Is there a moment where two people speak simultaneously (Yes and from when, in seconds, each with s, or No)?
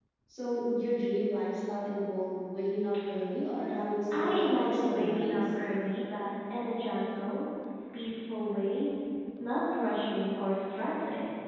Yes, from 4.1 s